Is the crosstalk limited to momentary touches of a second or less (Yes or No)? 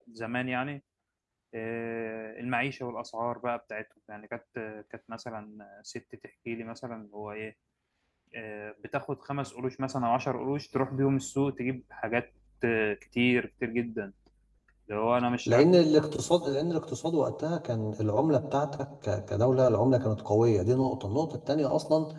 Yes